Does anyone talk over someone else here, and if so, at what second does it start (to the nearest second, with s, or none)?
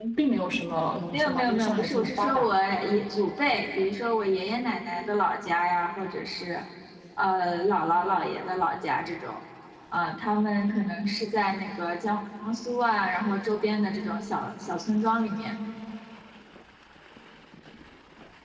1 s